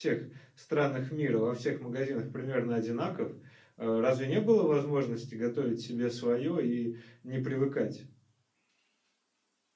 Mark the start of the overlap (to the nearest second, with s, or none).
none